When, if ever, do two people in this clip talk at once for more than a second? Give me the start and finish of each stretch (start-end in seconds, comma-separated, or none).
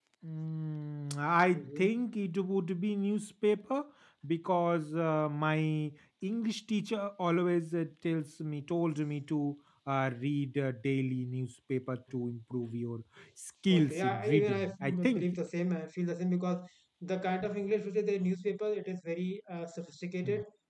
13.7-15.3